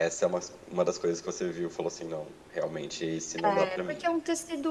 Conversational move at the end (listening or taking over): taking over